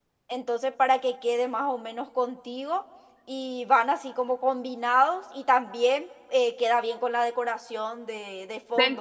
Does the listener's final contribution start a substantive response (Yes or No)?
Yes